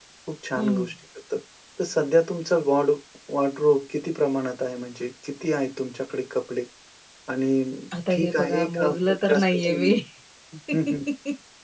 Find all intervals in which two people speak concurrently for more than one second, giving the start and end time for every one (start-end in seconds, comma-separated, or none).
8.1-9.9